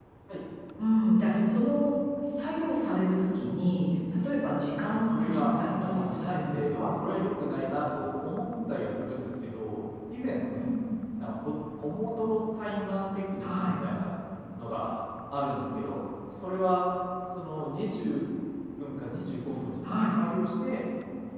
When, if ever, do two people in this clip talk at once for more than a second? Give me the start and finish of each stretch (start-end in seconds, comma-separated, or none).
4.9-6.9